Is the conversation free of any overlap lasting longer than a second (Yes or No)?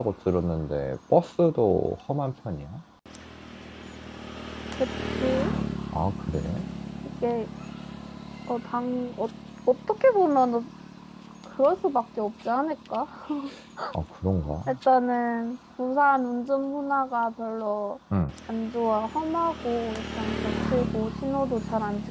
Yes